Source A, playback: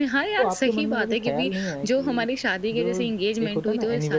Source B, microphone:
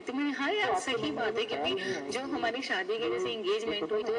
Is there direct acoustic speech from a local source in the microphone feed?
Yes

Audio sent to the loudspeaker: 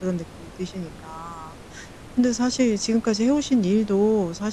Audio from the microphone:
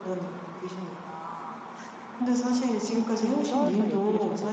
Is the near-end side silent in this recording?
No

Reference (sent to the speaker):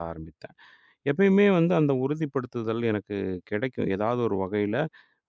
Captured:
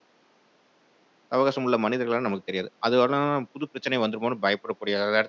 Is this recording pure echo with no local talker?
No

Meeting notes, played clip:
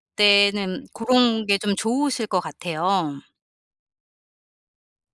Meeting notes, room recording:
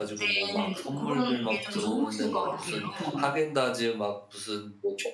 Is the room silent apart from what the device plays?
No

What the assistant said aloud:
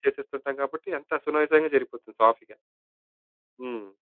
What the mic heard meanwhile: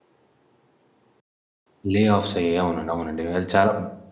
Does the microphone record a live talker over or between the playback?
Yes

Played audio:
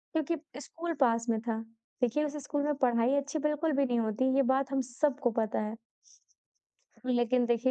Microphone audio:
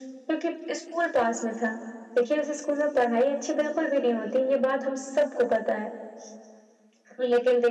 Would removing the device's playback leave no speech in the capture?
Yes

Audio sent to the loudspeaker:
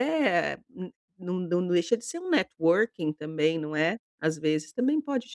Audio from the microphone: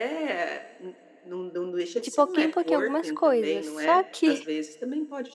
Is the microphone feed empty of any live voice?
No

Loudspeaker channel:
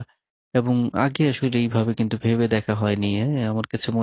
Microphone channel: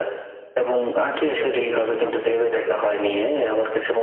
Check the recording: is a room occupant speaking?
Yes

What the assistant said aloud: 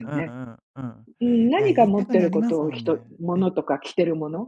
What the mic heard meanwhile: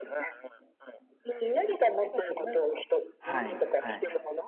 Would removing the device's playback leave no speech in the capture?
No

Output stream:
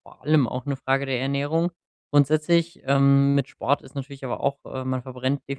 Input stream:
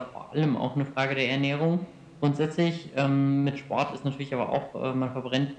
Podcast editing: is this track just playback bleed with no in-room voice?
Yes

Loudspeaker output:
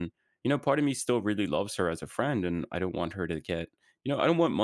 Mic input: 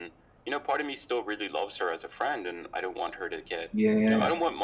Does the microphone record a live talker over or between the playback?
Yes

